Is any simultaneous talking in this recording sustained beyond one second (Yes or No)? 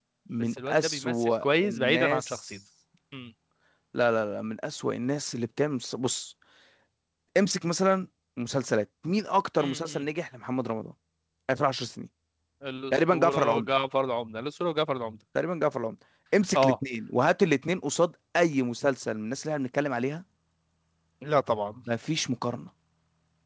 Yes